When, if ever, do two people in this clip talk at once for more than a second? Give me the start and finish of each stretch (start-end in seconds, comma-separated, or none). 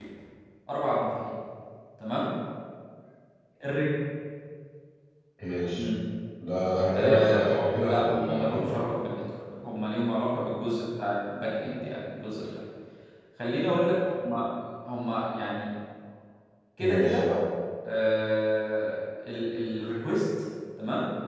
6.9-8.8